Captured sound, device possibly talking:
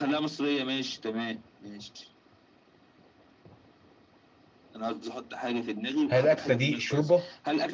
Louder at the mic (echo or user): user